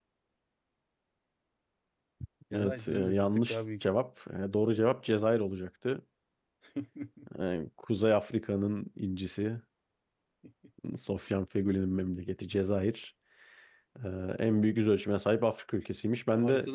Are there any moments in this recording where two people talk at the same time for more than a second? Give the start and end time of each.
2.5-3.8

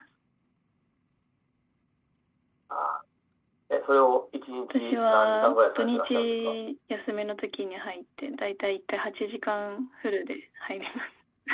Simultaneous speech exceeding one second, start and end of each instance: 4.7-6.5

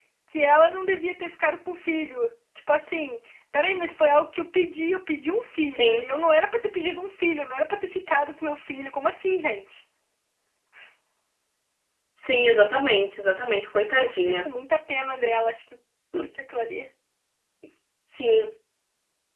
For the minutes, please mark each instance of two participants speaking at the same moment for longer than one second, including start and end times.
none

